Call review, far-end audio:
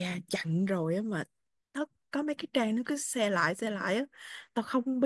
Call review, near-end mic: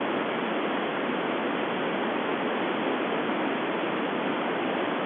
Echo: none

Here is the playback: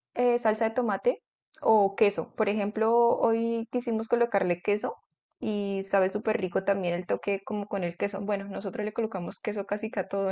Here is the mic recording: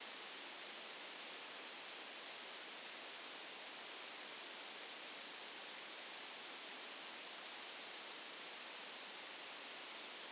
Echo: none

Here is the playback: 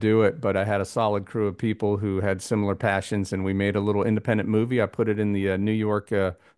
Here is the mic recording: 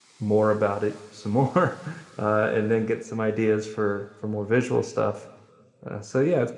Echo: none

